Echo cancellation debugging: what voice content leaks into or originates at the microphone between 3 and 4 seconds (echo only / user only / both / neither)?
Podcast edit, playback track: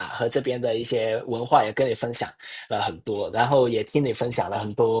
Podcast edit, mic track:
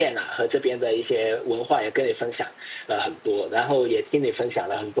echo only